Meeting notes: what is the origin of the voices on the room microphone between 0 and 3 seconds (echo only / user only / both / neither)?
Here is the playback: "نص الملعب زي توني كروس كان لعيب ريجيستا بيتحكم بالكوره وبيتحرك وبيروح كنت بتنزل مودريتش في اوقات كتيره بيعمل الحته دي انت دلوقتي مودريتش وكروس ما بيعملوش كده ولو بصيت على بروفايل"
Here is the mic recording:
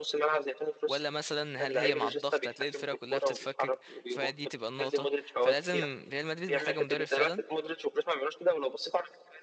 both